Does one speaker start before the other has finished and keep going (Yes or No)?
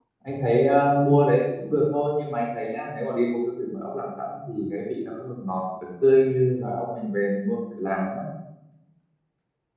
No